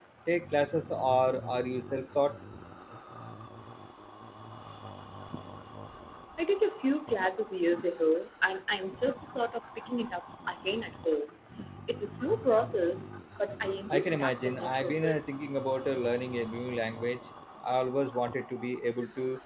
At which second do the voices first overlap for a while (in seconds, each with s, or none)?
13.9 s